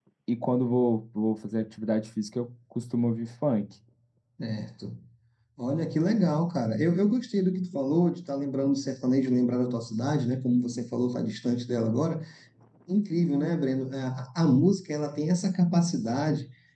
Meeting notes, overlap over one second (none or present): none